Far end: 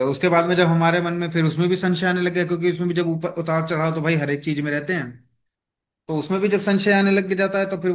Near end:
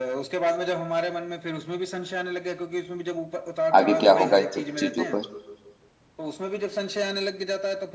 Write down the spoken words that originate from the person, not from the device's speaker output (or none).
आगे क्या होगा इन सब चीजों पर